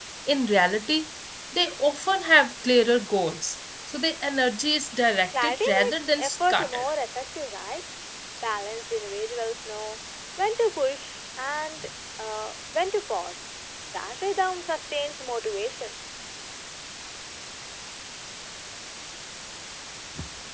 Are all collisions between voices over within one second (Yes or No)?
No